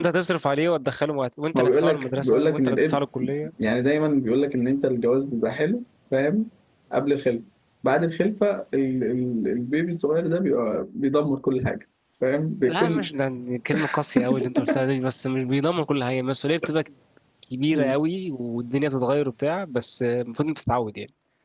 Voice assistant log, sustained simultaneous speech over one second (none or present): present